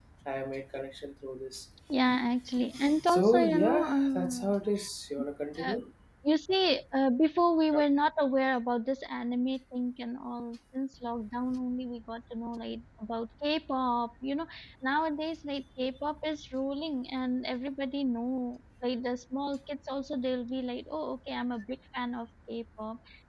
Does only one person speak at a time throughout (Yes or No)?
No